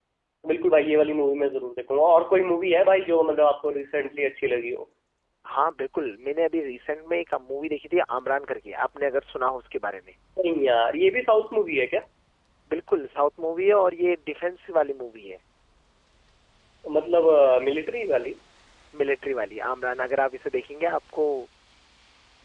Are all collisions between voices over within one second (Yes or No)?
Yes